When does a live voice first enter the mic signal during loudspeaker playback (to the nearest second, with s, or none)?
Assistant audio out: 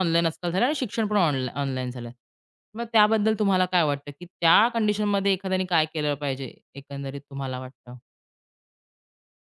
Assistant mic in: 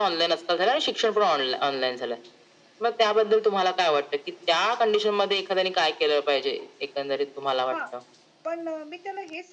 8 s